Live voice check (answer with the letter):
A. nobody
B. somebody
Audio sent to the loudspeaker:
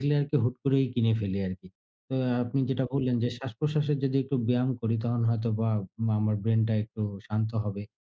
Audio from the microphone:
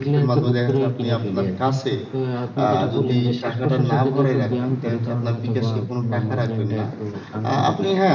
B